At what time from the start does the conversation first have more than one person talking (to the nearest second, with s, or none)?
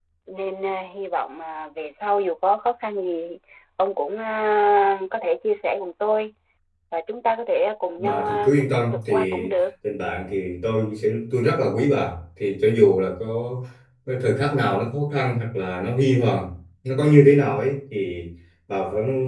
8 s